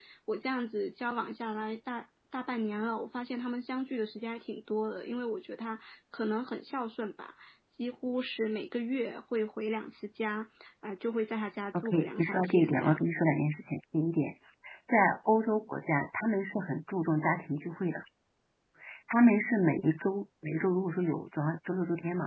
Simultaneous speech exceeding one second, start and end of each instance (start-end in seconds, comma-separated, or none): 11.7-13.1